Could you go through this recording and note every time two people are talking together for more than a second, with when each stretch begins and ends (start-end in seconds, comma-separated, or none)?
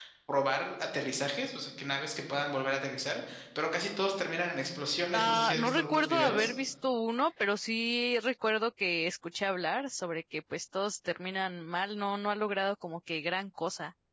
5.2-6.5